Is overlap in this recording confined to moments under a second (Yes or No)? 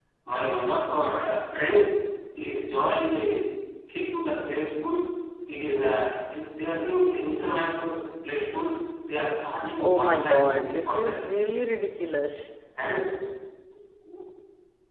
No